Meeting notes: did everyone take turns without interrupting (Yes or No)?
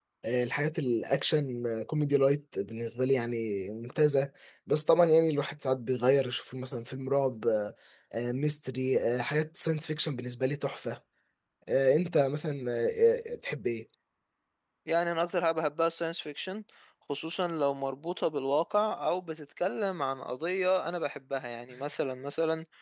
Yes